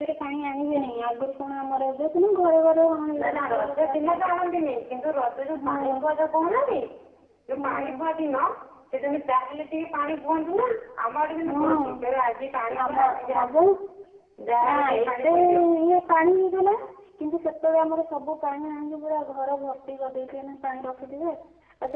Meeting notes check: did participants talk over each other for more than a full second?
Yes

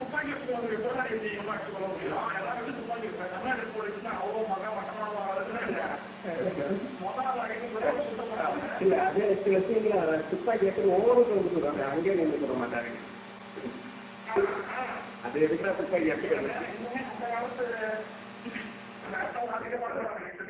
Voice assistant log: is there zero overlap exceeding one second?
Yes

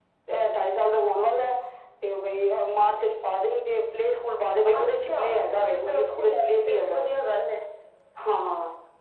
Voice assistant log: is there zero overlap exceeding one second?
No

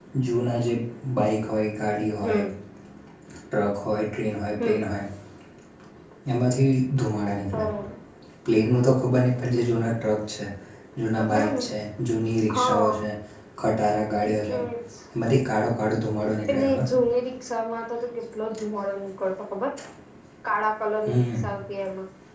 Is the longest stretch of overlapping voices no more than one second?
Yes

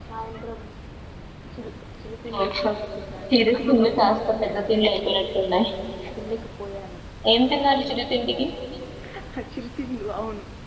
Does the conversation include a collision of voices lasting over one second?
Yes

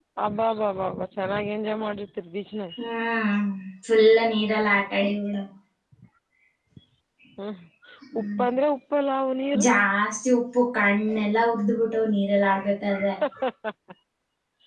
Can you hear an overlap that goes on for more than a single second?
No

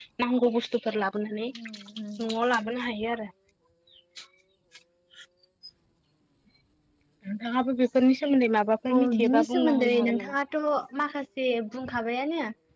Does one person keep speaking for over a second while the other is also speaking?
Yes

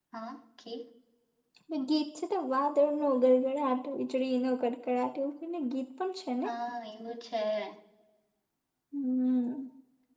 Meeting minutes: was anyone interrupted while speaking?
No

